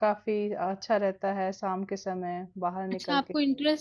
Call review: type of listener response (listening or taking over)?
taking over